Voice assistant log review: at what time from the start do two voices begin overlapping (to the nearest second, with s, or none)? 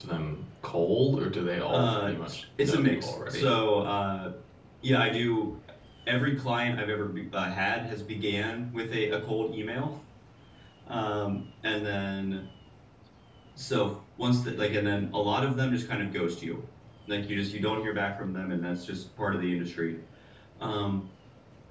2 s